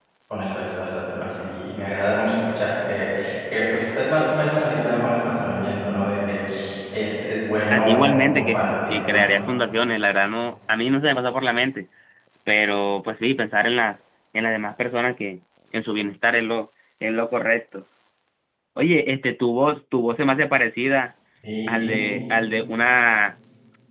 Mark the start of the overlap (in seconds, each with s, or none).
7.7 s